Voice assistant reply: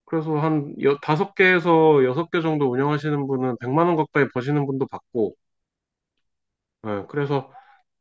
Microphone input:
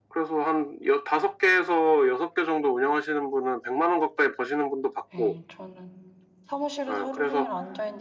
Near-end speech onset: 5.1 s

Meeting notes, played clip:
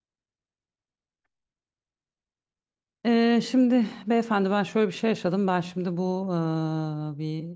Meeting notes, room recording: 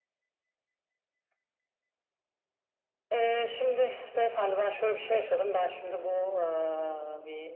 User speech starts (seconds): none

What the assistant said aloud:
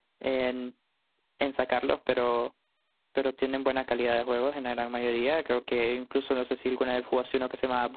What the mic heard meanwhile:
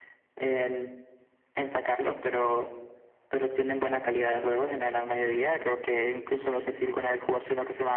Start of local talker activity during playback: none

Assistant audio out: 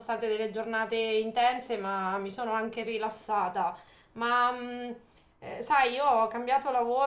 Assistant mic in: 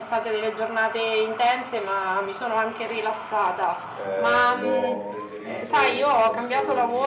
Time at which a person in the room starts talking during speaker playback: 3.9 s

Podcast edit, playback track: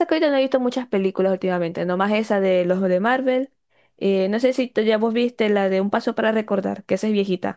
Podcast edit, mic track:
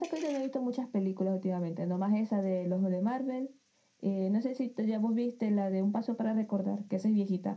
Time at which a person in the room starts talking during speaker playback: none

